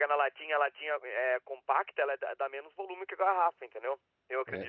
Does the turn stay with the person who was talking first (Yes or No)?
No